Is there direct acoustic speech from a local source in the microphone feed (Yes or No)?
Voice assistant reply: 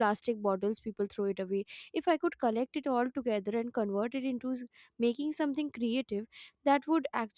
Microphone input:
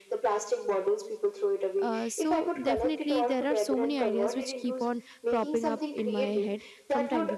Yes